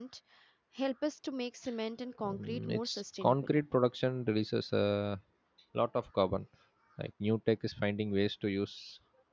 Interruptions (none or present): present